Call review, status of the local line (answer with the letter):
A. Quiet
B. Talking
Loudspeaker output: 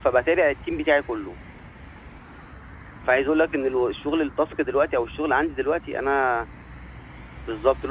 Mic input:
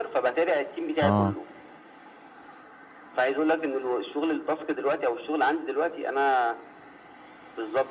B